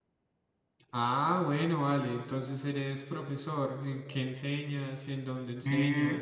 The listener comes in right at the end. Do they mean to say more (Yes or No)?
Yes